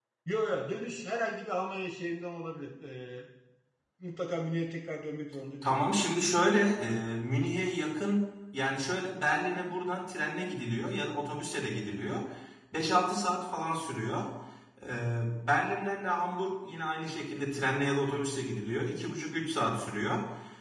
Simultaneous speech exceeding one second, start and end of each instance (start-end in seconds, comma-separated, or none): none